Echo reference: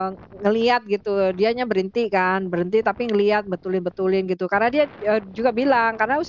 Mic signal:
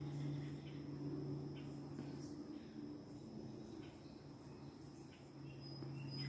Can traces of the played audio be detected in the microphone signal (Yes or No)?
No